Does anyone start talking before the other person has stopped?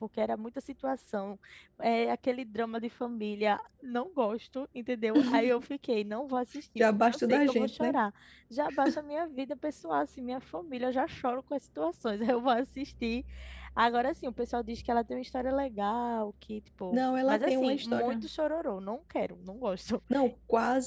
Yes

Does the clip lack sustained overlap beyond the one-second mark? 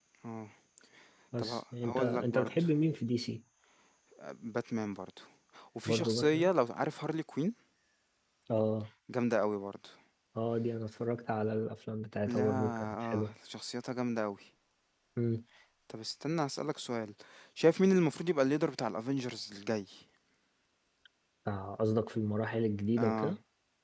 No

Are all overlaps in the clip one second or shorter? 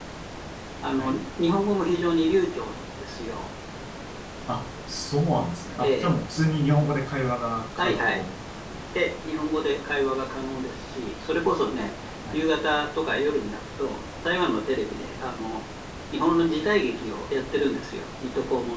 Yes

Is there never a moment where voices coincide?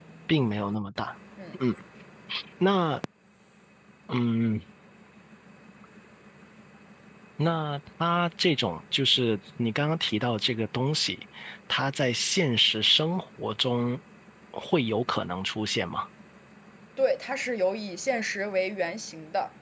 Yes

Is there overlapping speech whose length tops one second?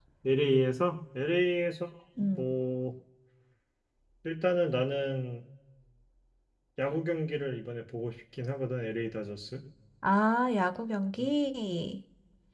No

